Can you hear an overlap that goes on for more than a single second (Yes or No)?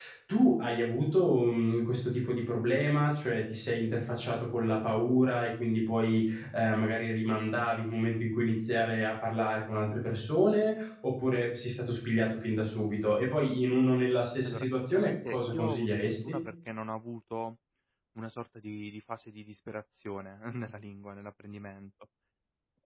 Yes